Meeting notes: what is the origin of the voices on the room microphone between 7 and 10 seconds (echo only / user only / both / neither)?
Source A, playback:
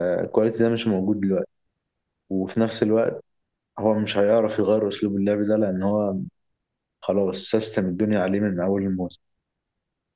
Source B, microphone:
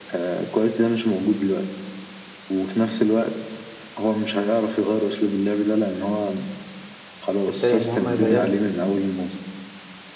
both